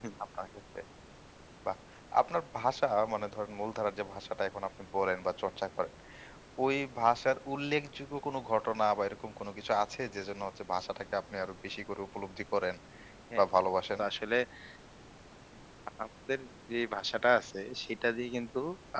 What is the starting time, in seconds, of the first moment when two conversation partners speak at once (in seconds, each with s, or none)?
none